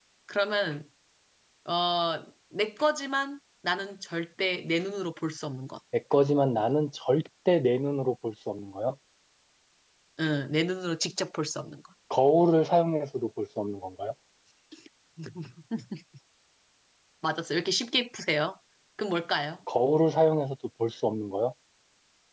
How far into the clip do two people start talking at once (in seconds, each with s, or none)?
none